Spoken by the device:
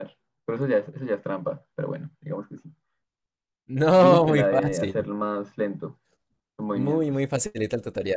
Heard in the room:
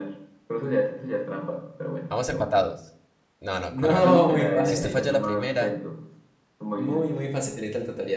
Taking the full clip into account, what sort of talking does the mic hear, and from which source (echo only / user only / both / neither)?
both